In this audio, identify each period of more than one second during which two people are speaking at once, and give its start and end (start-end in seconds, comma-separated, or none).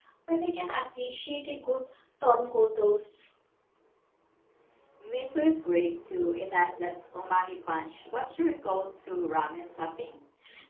none